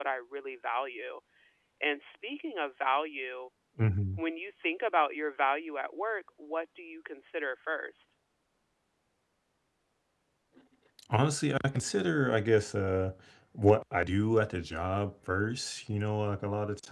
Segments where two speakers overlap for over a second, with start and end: none

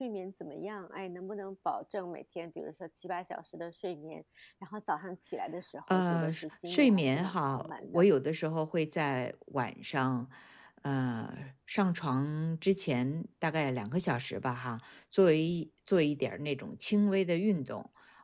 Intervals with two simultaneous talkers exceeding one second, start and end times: 5.9-8.0

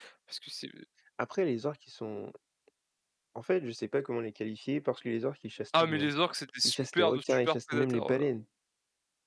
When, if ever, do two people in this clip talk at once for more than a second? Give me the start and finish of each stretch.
6.6-8.3

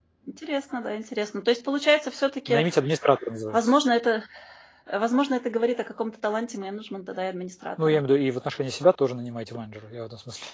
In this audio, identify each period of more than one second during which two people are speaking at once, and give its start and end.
none

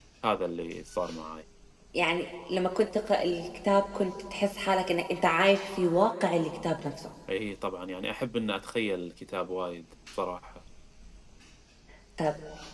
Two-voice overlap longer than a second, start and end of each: none

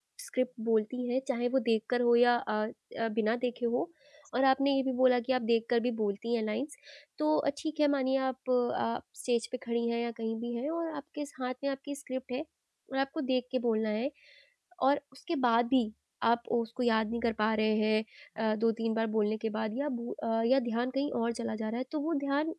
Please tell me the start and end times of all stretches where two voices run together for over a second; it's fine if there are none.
none

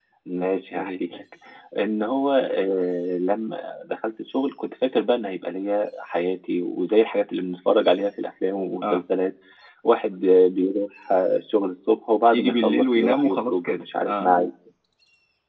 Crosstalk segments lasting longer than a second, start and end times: 12.3-14.3

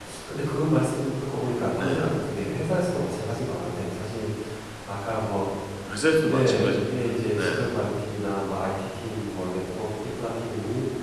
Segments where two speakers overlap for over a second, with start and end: 6.2-7.7

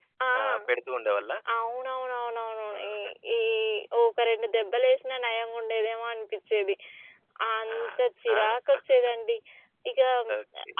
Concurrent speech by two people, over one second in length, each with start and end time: none

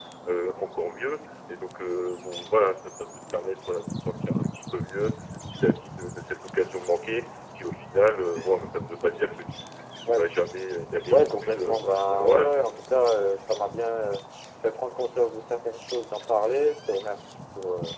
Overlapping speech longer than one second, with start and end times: 11.1-12.5

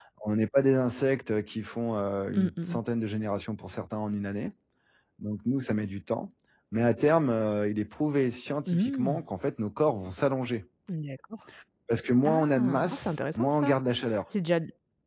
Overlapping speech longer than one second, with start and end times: 12.2-13.8

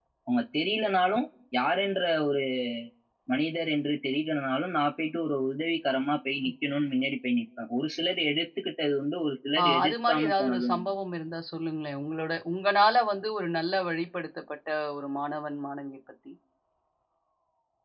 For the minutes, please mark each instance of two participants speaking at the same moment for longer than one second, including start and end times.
9.6-10.9

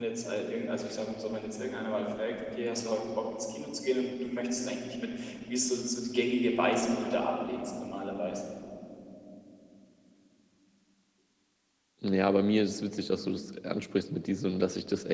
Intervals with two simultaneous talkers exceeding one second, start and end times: none

